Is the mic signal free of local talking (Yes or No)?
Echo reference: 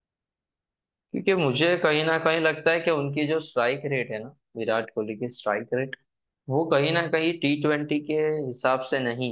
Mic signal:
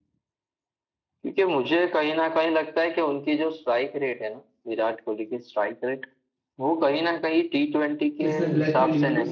No